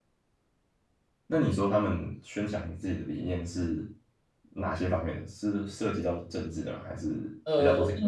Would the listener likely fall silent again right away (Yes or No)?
No